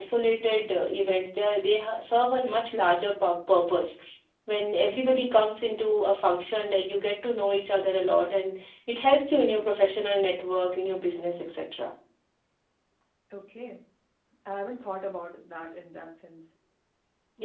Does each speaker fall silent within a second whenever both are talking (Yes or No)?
Yes